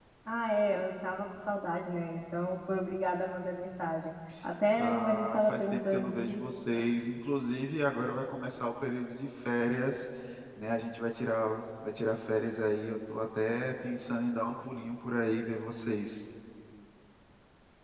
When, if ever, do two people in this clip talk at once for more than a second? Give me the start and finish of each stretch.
4.8-6.4

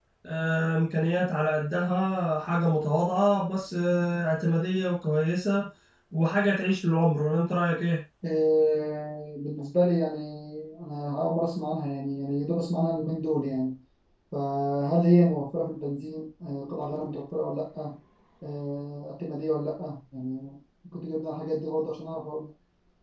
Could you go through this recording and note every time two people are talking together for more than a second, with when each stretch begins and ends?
none

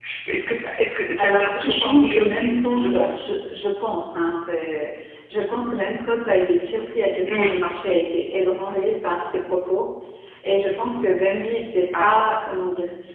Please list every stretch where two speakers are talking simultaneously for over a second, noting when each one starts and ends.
1.2-3.2

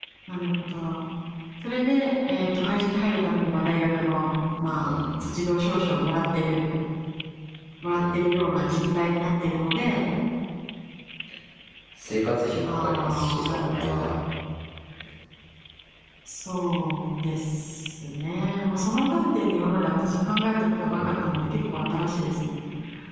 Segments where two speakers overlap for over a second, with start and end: 12.6-14.1

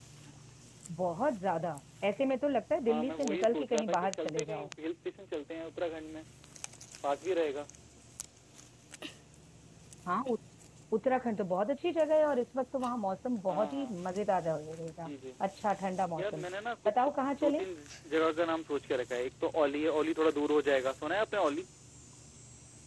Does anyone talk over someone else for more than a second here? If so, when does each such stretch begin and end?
2.8-4.7

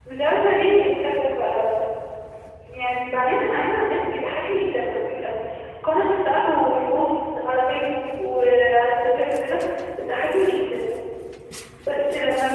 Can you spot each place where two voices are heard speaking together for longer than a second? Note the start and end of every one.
none

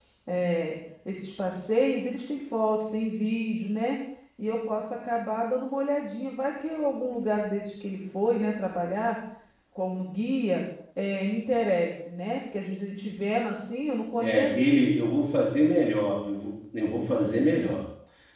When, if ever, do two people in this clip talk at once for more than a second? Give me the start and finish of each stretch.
none

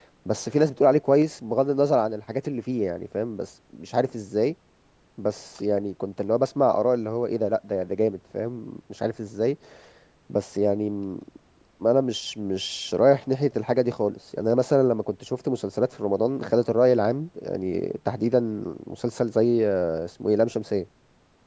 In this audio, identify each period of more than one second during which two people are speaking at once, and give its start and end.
none

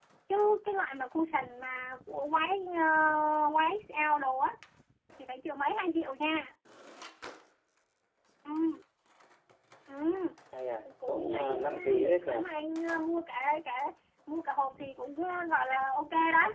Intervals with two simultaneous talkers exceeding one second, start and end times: 11.1-12.3

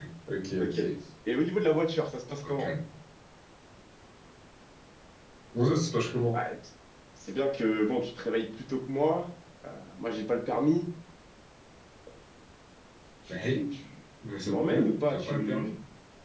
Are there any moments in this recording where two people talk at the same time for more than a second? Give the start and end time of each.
14.4-15.7

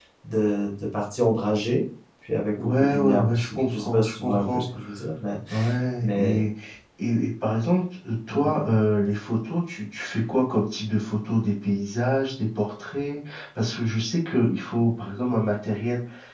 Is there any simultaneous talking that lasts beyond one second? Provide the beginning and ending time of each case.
2.6-4.7

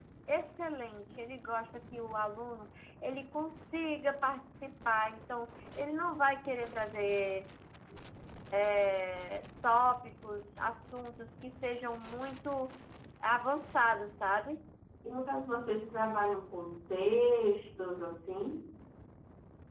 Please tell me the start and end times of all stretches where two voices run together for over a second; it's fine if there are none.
none

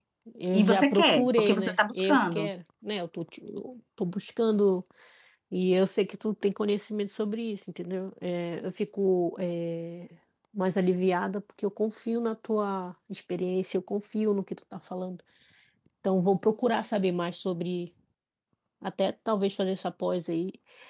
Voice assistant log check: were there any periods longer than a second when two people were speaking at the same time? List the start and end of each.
0.5-2.5

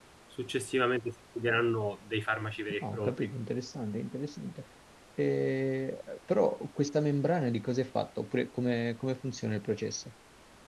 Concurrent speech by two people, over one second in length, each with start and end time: none

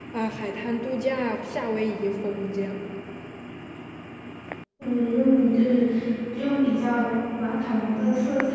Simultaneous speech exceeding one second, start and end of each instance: none

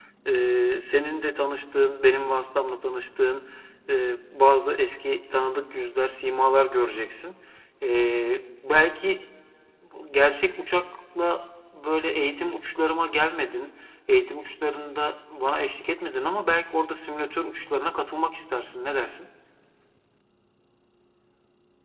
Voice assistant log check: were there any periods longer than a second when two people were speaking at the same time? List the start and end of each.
none

